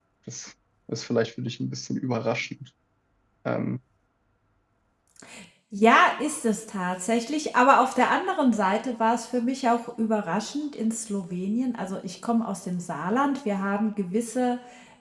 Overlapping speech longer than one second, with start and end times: none

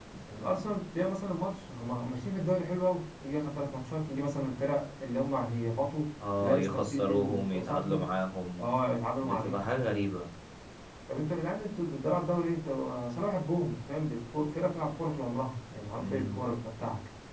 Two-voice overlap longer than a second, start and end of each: 6.4-8.1

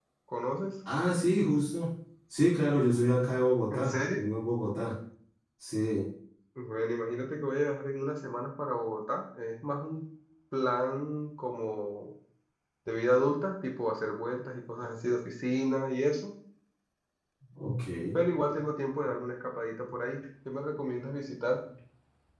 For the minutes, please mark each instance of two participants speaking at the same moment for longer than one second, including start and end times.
none

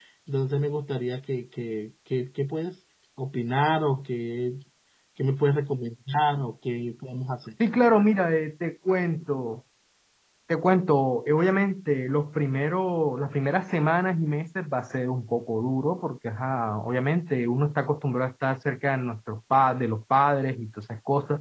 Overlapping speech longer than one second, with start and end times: none

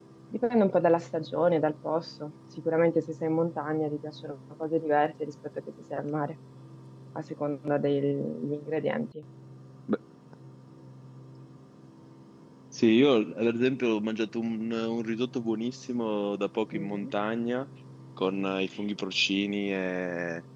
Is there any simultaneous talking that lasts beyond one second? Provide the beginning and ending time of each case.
none

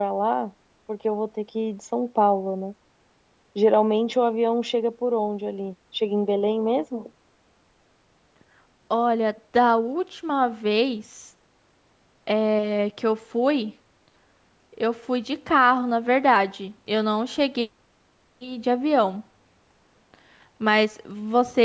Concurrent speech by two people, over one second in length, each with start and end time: none

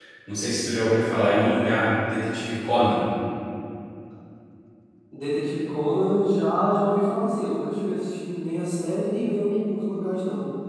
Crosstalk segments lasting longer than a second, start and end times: none

